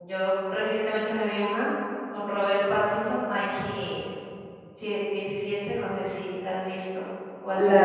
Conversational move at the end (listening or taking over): taking over